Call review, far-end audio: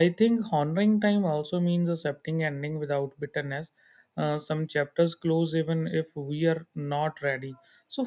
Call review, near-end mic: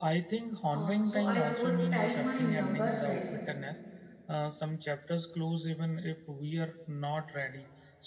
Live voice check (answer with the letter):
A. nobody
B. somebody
B